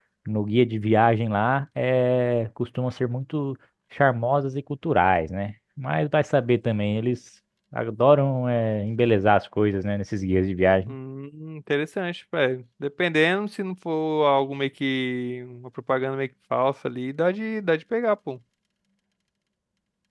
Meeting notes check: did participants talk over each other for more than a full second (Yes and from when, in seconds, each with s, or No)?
No